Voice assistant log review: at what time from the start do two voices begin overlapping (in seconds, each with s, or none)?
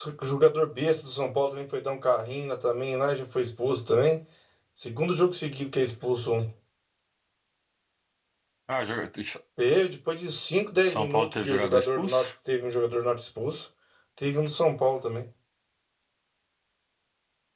10.8 s